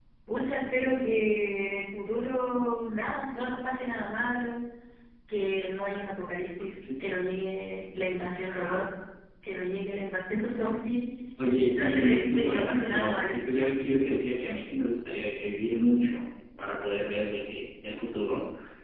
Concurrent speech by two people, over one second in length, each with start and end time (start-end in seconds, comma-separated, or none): 11.5-13.3